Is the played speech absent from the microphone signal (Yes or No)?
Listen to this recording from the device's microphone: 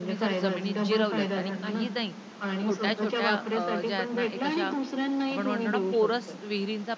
No